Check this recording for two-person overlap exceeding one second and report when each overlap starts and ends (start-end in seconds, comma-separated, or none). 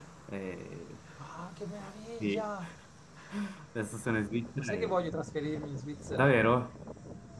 none